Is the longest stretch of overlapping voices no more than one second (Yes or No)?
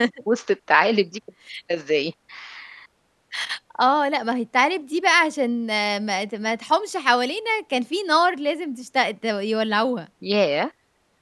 Yes